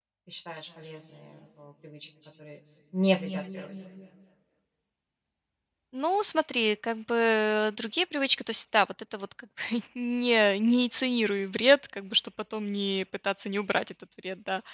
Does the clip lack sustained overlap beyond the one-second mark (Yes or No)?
Yes